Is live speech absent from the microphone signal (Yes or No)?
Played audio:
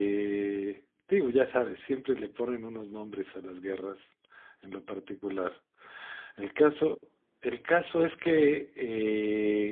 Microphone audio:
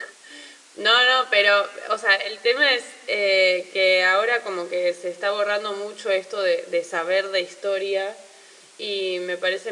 No